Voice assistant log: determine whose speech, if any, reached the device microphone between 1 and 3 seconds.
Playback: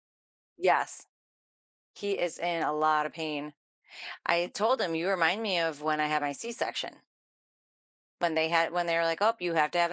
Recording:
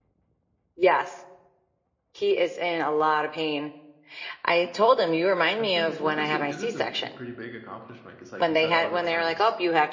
echo only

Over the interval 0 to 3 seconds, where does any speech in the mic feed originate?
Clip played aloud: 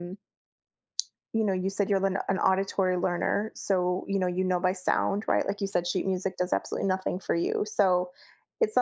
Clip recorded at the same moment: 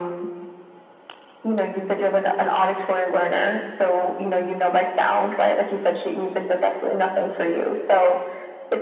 echo only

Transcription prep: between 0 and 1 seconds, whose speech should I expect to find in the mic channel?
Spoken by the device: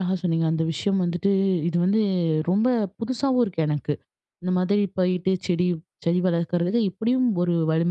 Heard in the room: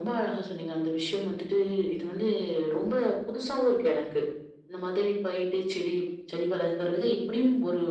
echo only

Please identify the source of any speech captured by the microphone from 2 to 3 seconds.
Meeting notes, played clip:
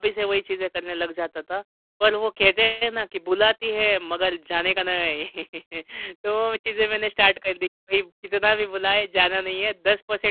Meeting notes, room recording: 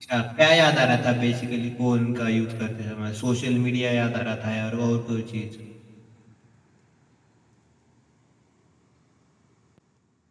user only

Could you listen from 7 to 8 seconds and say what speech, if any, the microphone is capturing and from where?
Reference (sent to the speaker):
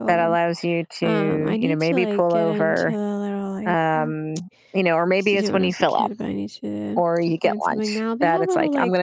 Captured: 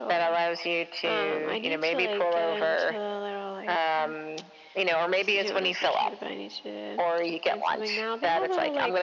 echo only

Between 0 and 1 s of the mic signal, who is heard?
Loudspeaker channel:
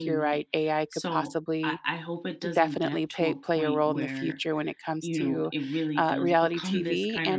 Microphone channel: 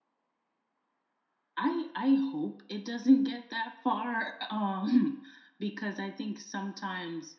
neither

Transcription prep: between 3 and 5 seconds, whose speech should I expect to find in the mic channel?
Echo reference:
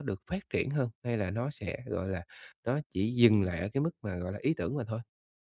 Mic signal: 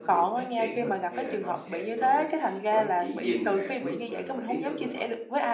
both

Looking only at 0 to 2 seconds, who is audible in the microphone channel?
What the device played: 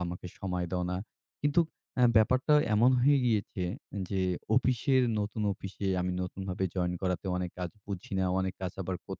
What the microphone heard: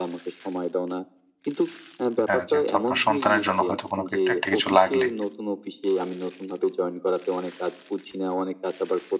echo only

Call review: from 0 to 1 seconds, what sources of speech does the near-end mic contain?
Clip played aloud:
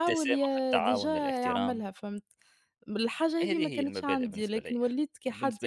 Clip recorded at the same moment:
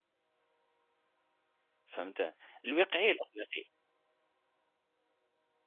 neither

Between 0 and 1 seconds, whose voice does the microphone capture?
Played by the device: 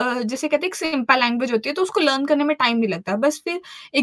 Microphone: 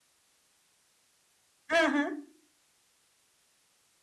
neither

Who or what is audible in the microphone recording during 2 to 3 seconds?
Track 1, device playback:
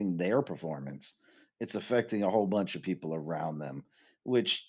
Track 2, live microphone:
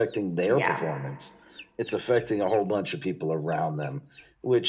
echo only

